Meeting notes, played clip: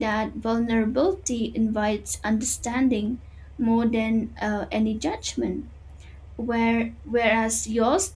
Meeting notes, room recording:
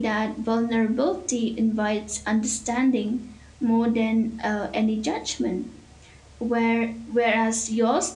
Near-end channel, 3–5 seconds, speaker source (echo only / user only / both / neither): echo only